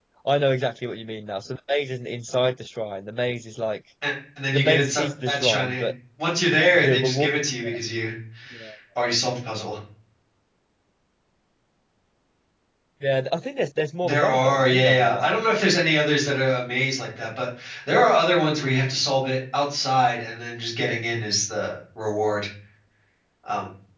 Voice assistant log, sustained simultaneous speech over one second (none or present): present